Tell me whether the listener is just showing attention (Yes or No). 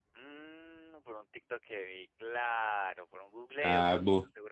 No